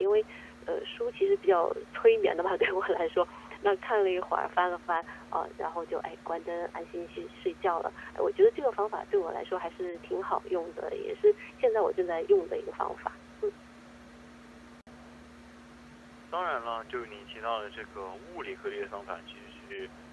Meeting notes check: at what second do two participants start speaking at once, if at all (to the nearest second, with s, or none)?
none